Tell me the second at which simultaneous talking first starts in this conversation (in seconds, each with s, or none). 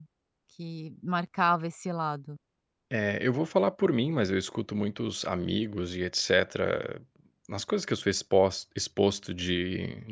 none